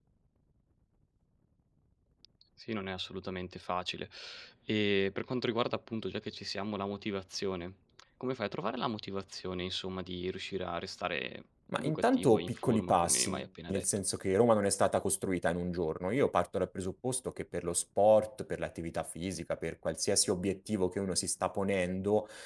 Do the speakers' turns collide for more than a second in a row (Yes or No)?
Yes